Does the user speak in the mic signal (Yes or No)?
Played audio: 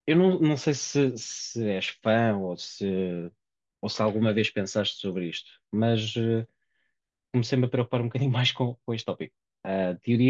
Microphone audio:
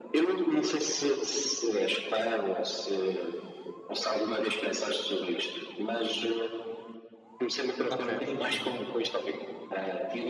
Yes